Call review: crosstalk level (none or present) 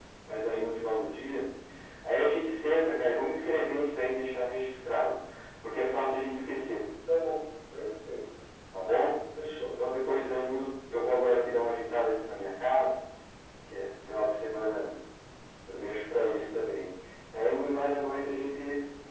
none